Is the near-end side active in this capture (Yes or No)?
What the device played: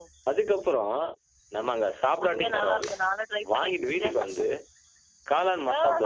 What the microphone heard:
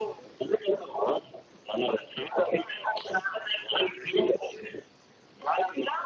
No